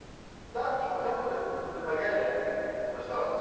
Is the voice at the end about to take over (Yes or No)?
Yes